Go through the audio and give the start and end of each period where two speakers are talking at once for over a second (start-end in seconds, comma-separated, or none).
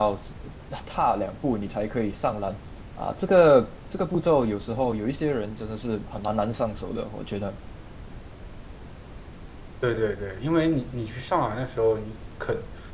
none